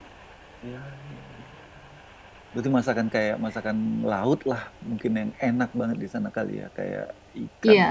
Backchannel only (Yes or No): No